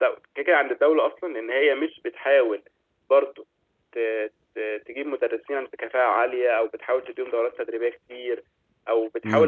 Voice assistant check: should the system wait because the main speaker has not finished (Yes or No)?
Yes